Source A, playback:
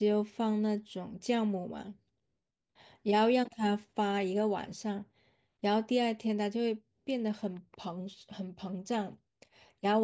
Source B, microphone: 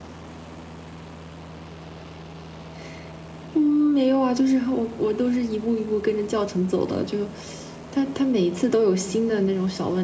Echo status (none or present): none